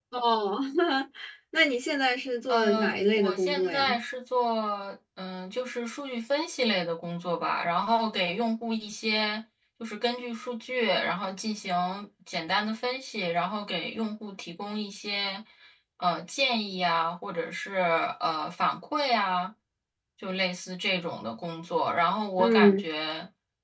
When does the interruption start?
2 s

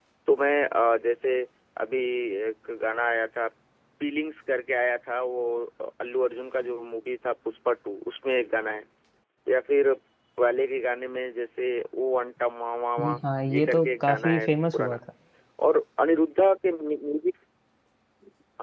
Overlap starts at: 13 s

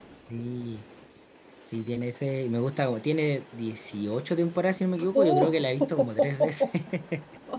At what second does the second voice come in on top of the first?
5 s

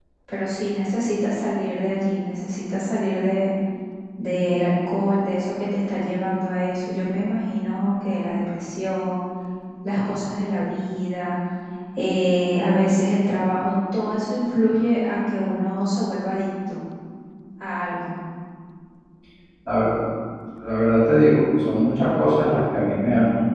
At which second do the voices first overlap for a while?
none

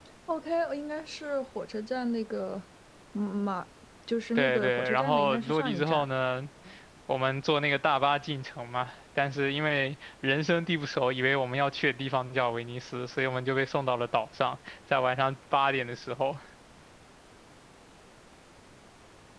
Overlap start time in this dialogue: 4 s

